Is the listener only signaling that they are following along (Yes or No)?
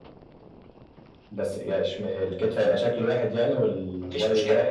No